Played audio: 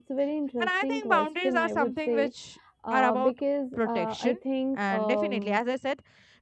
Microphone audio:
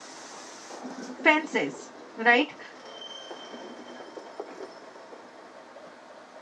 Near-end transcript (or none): fences, right?